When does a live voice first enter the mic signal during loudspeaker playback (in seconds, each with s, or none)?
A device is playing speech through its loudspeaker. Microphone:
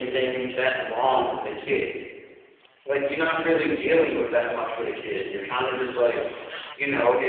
none